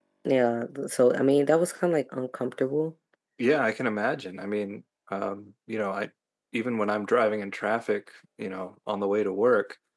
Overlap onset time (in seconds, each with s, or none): none